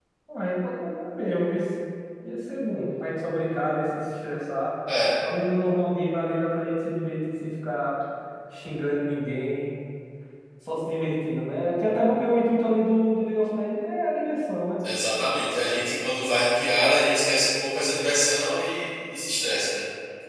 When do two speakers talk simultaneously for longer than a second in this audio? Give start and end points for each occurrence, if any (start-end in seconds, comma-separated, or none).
none